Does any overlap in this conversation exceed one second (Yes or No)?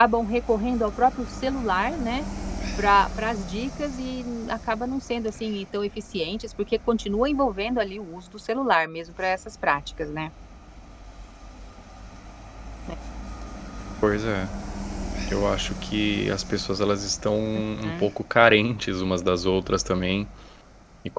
No